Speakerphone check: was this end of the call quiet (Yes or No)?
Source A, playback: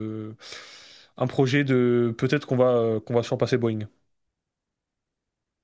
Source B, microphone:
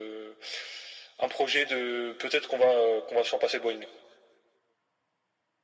Yes